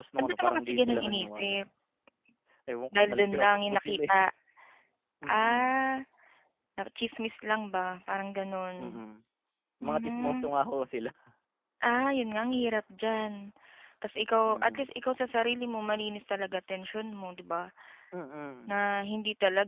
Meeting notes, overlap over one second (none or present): present